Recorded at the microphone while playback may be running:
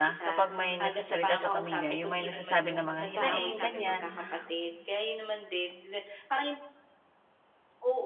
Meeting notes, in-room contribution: present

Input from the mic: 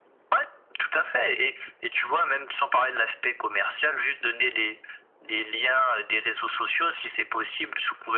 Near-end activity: none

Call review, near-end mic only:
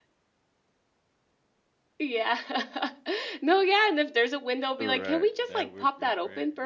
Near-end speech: present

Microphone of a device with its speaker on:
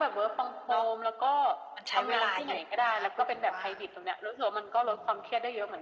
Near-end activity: none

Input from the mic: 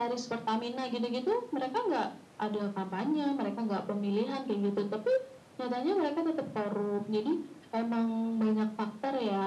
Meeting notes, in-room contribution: none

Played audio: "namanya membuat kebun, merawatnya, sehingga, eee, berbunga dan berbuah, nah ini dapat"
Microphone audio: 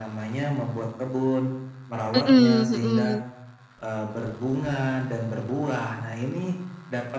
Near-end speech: present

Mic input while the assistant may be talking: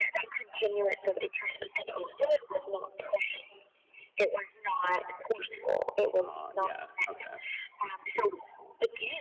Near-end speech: present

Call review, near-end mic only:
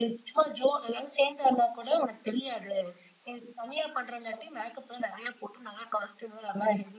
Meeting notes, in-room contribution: none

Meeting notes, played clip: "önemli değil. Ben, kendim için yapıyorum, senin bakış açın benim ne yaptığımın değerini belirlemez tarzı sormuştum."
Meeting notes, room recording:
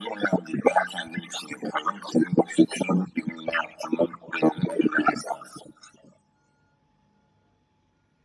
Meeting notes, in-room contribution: none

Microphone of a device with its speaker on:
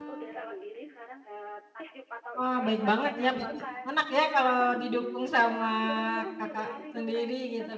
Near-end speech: present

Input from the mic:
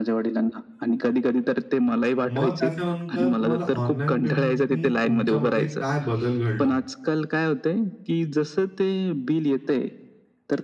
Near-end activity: present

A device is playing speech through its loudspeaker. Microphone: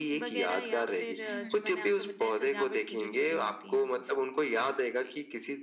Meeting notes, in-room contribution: present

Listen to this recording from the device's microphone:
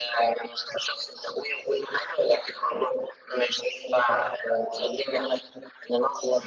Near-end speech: none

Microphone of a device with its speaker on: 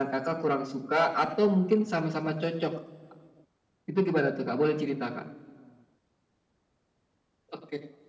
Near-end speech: none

